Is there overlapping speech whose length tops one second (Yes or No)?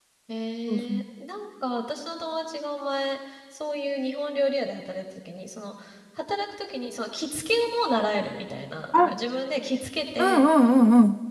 No